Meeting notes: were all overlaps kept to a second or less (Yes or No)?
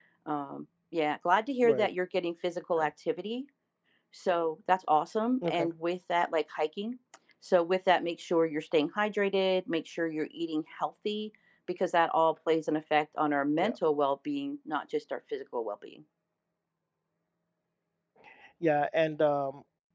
Yes